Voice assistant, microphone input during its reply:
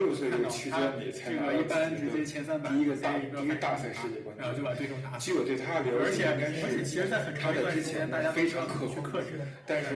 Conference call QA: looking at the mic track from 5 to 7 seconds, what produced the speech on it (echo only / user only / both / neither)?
both